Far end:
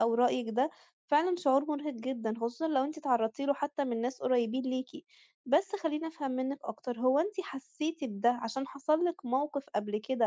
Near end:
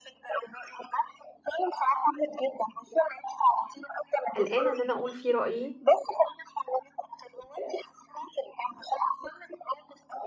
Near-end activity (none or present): present